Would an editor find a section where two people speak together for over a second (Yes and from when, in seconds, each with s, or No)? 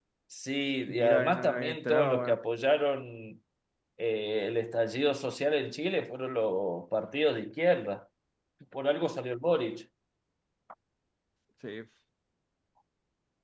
Yes, from 0.9 s